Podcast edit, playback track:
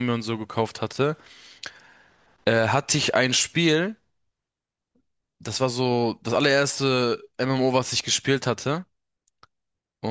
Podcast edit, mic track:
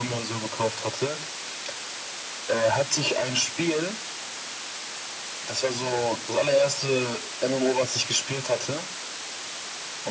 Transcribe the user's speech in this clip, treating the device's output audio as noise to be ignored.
none

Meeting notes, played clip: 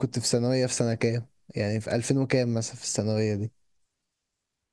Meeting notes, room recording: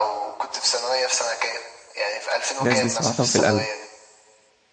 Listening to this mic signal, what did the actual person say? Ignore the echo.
الناس دي صراحة في القلب

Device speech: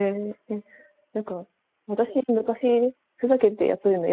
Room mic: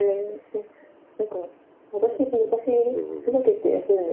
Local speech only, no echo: うん。

